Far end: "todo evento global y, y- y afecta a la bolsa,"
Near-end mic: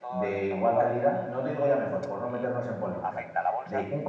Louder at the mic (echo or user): user